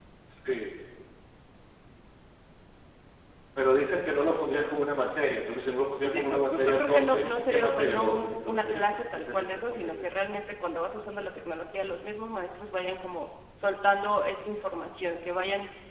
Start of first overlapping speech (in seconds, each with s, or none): 6.0 s